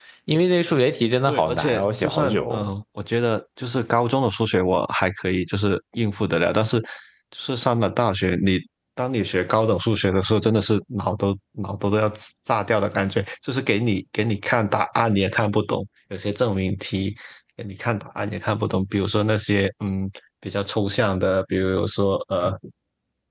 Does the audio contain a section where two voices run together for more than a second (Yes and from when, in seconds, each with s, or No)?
Yes, from 1.3 s